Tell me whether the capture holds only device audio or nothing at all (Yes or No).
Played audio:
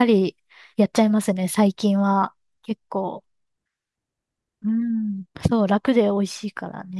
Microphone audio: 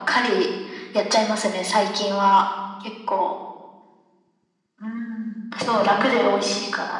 Yes